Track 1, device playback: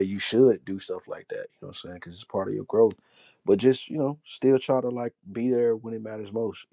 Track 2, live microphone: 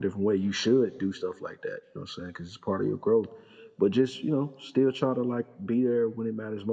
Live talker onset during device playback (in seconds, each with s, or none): none